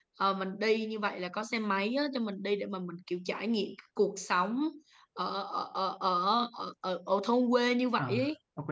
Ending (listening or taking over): taking over